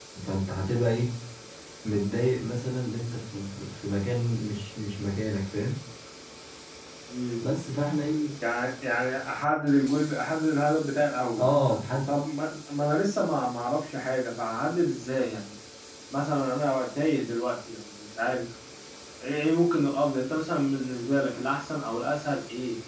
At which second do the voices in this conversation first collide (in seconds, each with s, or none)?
none